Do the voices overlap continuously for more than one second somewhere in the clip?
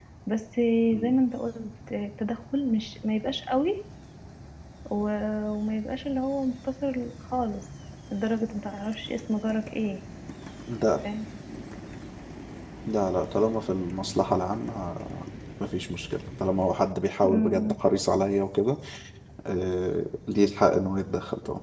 No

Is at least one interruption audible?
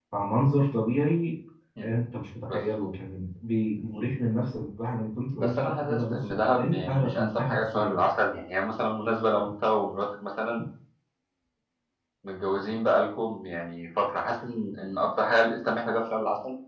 Yes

